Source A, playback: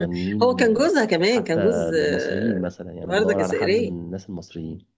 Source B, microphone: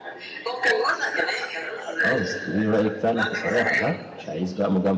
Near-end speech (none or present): present